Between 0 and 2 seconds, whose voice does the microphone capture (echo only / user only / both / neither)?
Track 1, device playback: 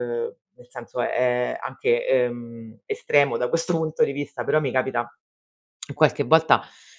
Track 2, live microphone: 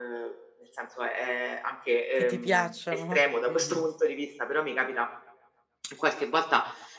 echo only